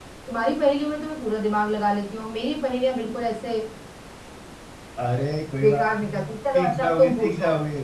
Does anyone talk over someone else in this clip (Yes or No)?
Yes